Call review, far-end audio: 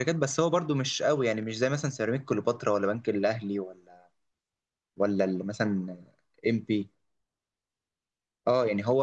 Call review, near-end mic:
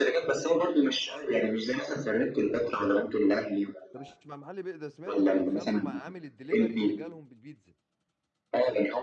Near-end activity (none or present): present